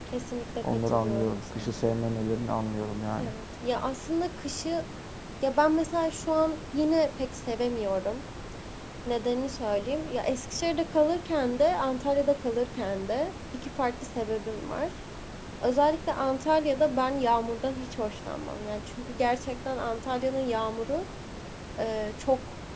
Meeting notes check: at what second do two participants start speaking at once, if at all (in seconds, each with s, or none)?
0.6 s